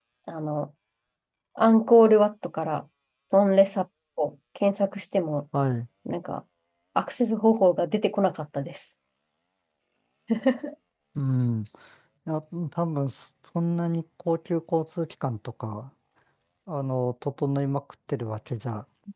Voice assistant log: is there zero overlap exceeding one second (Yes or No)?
Yes